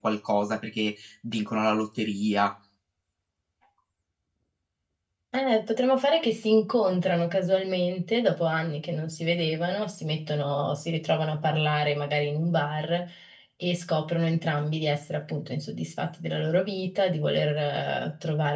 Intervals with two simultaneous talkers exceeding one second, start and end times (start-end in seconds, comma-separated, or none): none